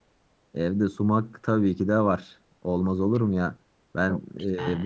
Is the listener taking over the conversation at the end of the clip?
No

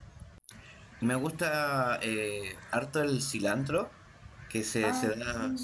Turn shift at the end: No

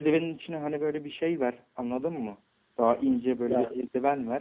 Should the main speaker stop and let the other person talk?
No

